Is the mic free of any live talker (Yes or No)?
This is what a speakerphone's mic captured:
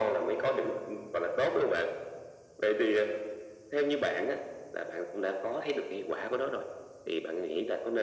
Yes